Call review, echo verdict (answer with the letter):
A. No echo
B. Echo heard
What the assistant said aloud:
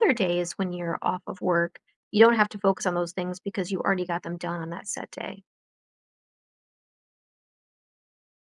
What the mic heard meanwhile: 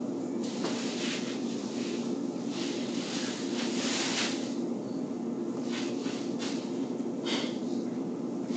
A